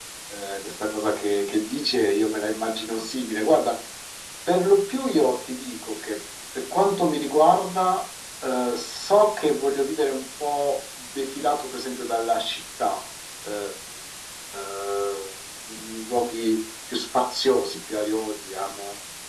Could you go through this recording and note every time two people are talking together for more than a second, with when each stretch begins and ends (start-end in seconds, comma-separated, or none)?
none